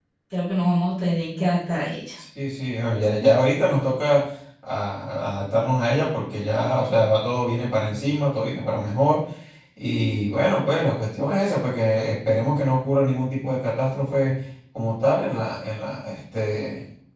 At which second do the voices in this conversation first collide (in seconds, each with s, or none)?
none